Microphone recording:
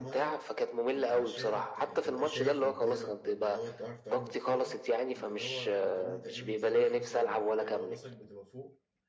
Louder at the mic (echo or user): echo